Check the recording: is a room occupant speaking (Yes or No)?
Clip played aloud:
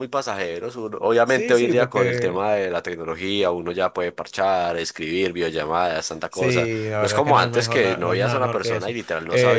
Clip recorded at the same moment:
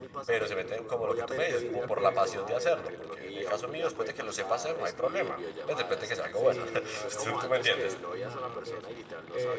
Yes